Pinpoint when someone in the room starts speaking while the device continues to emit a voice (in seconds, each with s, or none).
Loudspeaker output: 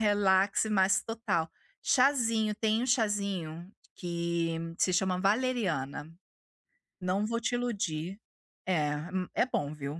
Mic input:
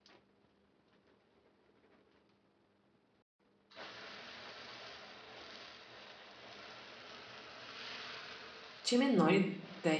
8.8 s